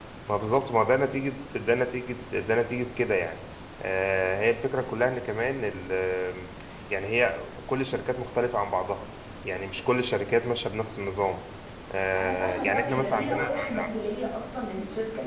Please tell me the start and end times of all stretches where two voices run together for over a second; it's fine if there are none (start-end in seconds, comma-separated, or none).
12.2-13.7